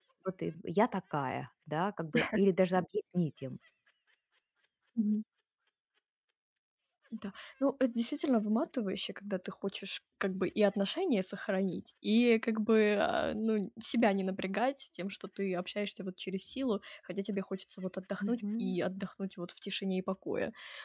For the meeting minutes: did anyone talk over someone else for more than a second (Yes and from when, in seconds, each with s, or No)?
No